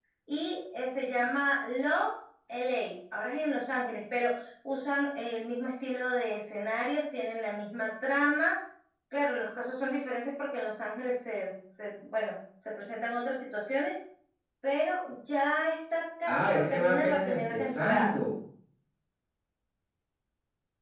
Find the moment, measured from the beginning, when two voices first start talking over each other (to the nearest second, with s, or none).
16 s